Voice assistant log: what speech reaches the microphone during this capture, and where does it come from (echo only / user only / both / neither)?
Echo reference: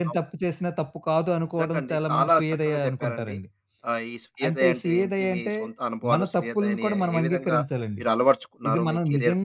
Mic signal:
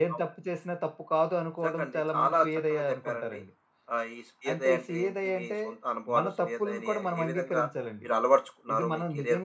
echo only